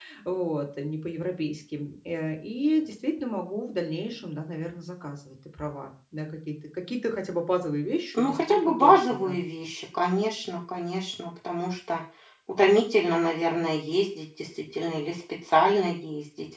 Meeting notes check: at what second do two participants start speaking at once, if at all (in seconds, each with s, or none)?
8.1 s